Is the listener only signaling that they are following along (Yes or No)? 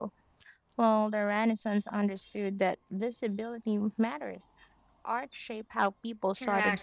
No